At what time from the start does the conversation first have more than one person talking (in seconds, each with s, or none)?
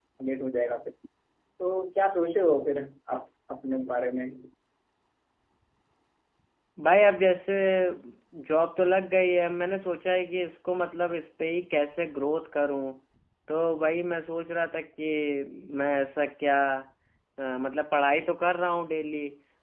none